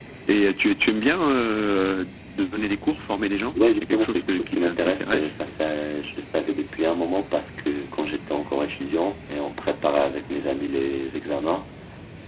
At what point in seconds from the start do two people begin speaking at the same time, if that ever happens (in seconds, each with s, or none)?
3.6 s